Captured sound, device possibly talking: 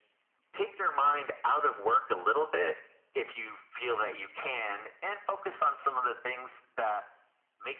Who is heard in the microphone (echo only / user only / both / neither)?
echo only